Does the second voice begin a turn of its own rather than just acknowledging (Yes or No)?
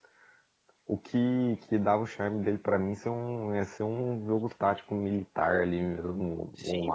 Yes